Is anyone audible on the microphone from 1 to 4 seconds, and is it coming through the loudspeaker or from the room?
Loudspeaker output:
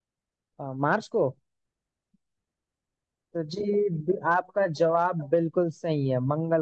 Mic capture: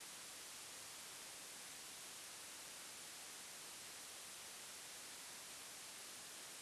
neither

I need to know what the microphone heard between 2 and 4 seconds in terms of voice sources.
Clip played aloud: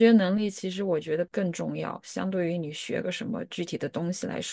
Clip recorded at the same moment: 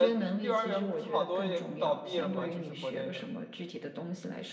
both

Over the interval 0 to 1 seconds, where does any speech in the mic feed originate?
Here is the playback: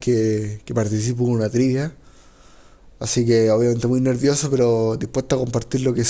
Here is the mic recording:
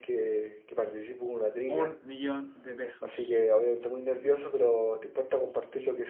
echo only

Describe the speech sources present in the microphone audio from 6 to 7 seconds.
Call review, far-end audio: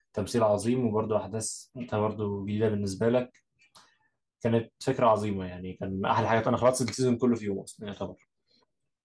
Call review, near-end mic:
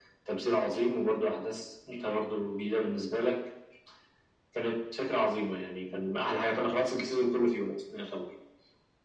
echo only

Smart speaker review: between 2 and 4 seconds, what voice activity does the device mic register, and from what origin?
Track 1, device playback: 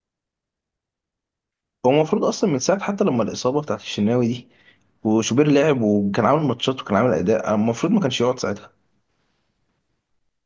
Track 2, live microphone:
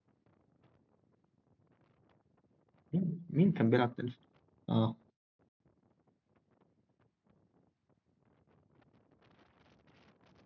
user only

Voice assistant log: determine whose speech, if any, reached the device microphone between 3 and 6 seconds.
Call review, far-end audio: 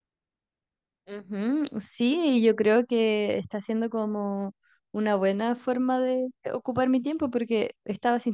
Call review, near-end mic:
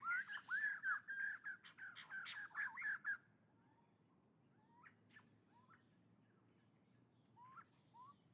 neither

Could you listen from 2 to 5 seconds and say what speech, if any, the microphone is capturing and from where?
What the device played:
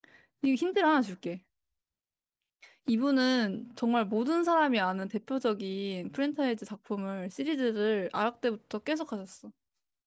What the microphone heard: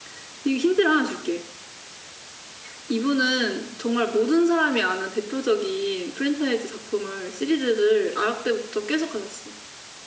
echo only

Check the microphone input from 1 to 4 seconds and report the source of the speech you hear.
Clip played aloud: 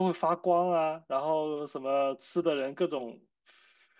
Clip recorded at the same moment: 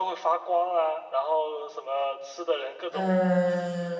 both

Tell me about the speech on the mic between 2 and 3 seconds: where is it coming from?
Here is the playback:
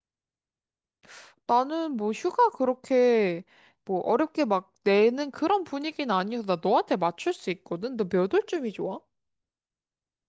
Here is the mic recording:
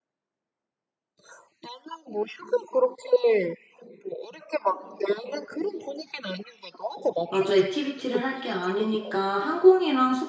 echo only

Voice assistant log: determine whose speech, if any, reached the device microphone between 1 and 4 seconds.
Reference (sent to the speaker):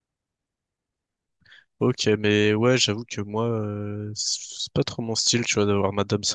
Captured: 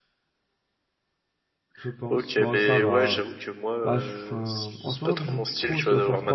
both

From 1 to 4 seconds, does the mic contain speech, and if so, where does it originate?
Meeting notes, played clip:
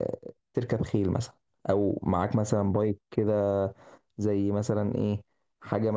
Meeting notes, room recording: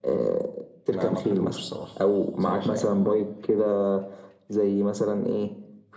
both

